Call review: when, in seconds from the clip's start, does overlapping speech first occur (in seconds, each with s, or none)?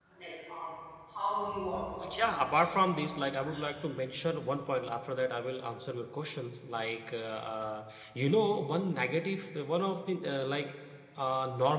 2.0 s